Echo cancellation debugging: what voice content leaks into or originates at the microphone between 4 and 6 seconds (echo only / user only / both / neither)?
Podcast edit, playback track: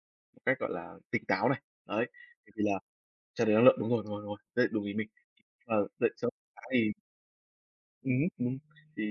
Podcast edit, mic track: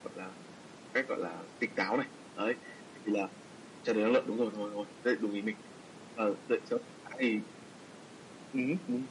echo only